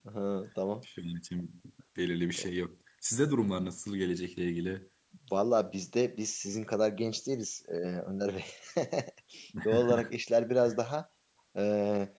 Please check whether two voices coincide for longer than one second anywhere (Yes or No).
No